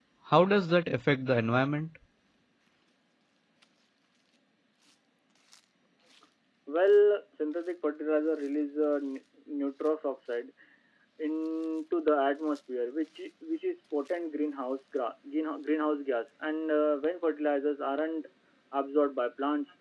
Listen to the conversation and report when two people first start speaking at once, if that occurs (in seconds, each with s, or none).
none